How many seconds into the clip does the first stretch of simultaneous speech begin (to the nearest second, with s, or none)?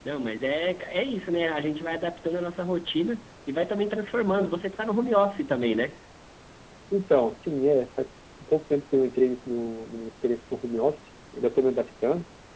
none